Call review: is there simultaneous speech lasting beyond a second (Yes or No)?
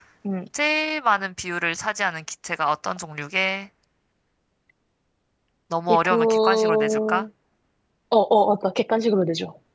Yes